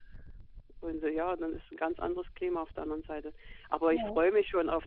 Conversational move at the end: listening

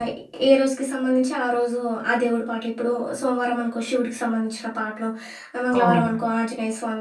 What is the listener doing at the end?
listening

